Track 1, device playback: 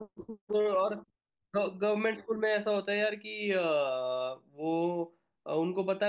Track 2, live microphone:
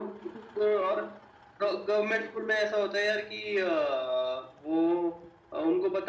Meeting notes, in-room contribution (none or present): none